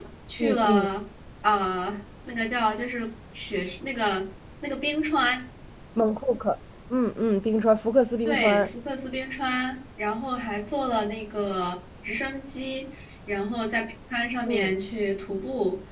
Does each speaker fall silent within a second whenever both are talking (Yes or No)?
Yes